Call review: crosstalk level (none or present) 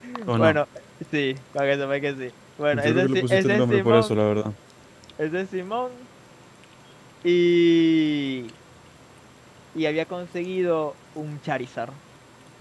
present